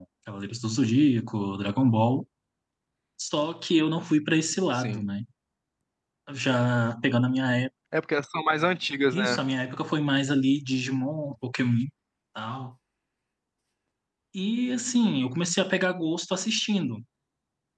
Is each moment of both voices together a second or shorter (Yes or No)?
Yes